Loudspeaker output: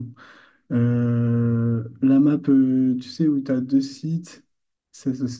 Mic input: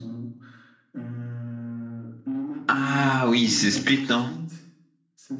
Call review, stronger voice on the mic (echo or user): user